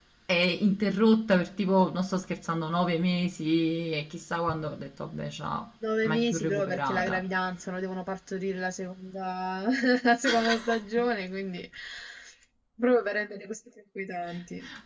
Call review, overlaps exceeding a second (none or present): present